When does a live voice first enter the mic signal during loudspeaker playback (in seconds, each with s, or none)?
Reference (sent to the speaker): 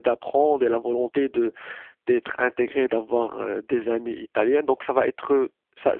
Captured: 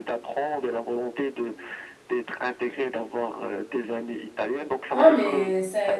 4.9 s